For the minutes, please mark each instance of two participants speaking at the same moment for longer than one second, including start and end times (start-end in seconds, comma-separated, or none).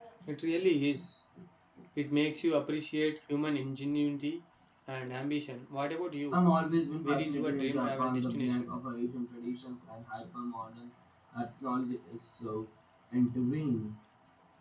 7.0-8.8